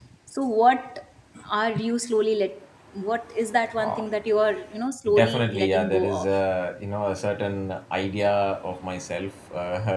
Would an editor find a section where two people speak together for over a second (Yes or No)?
Yes